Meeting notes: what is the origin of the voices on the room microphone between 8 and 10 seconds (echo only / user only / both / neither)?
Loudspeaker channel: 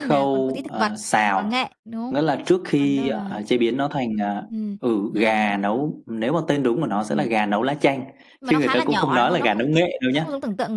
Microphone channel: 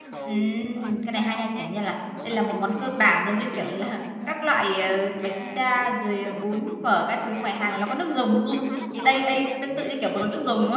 both